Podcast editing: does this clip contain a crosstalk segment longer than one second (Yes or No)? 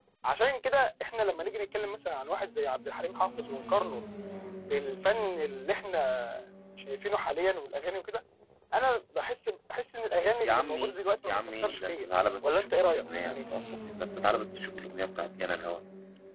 Yes